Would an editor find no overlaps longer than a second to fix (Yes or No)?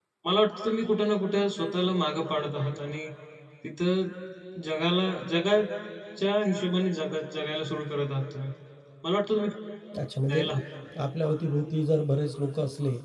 Yes